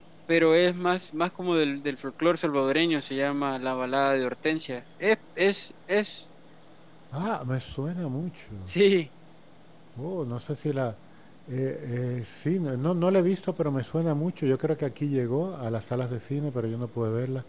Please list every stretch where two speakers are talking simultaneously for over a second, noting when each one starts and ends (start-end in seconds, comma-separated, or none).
none